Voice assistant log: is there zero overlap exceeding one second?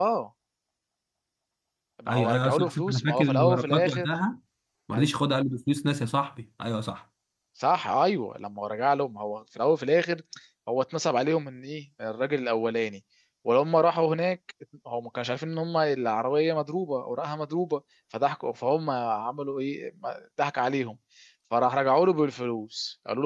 No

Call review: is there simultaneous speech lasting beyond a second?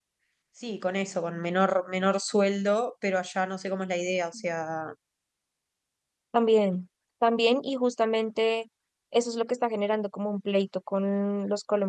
No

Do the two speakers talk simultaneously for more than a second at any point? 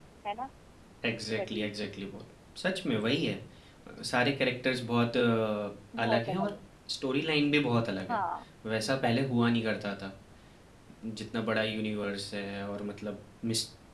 No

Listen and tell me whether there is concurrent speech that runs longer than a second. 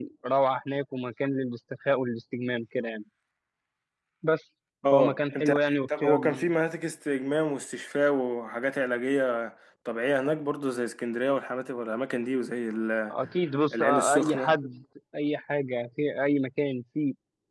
Yes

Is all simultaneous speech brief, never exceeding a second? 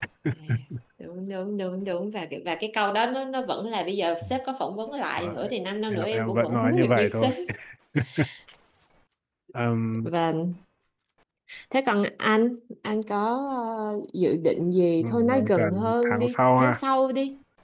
No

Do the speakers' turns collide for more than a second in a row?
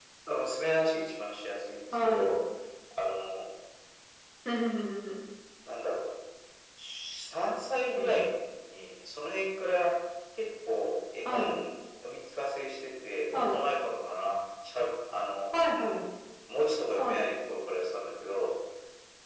No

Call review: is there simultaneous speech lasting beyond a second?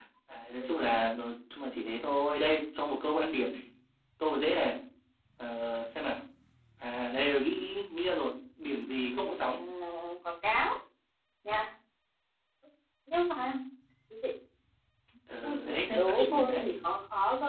Yes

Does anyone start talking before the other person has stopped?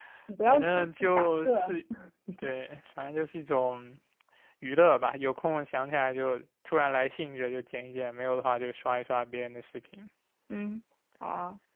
Yes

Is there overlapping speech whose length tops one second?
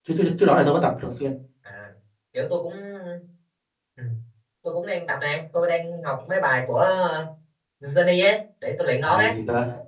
No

